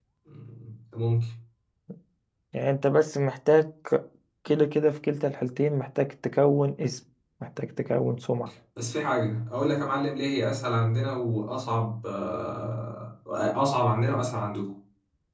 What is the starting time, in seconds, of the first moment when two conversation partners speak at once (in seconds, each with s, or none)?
none